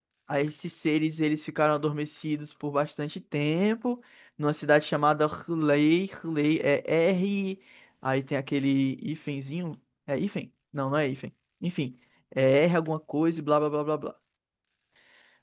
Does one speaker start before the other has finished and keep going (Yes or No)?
No